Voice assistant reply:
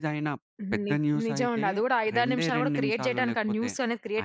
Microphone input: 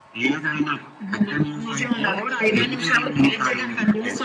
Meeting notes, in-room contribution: none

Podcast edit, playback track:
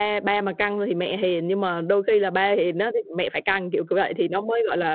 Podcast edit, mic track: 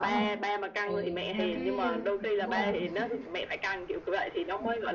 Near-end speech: present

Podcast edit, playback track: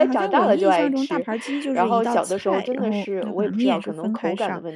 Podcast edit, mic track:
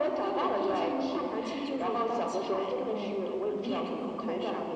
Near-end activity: none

